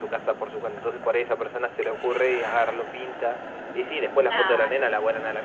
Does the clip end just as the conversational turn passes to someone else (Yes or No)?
No